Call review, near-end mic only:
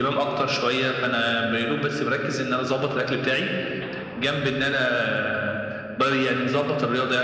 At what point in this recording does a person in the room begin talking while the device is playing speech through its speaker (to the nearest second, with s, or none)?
none